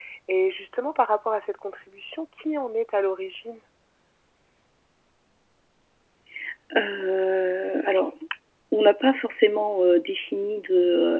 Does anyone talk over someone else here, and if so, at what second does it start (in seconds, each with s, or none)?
none